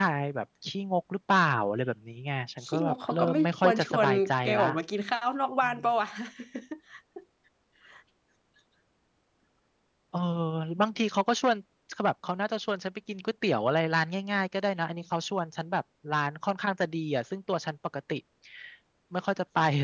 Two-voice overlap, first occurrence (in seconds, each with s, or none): 2.6 s